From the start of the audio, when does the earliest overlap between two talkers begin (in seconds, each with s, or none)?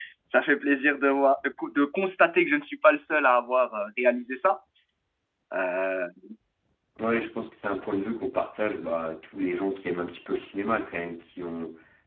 none